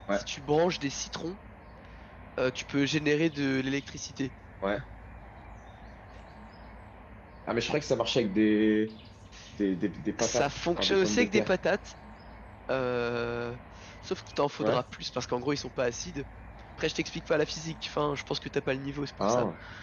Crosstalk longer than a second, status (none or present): present